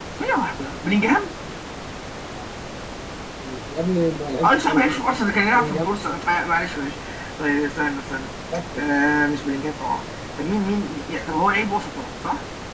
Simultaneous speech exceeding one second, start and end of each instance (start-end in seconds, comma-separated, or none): 4.4-5.9